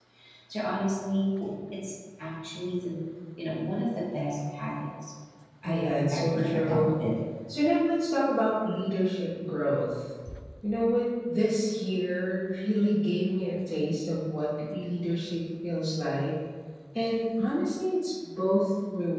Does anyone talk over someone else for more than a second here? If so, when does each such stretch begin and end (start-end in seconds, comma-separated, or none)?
5.6-6.8